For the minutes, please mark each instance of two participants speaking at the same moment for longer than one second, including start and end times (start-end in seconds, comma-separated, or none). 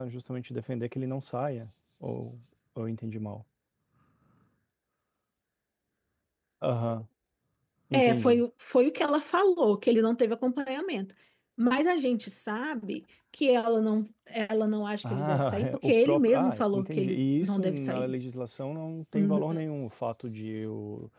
15.1-18.1